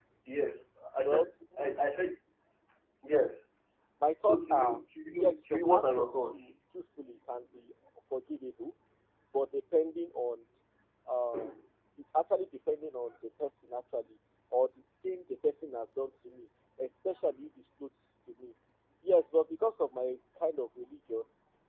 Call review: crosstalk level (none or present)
present